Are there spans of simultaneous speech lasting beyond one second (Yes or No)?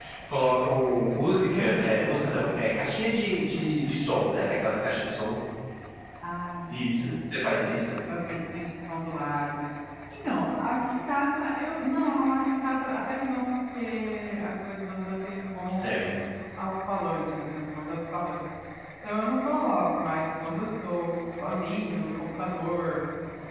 No